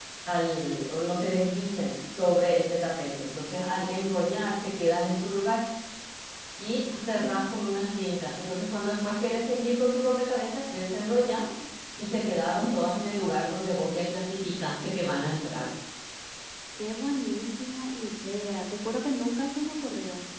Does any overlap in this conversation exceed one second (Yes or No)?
No